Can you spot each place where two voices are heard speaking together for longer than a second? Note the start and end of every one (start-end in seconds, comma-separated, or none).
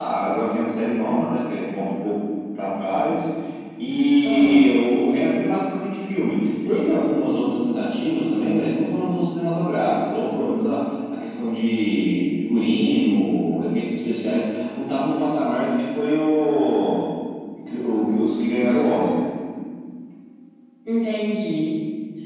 none